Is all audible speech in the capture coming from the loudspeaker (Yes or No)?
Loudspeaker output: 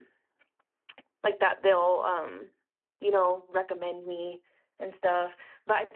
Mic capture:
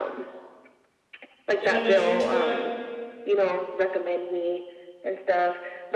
No